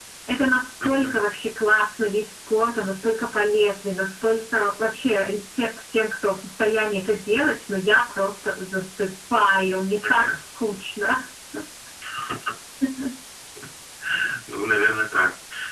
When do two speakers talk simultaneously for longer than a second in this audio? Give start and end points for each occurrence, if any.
none

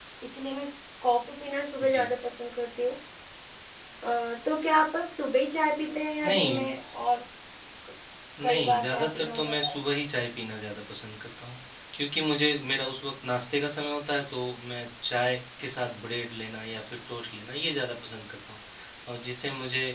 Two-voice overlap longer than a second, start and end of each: 8.4-9.8

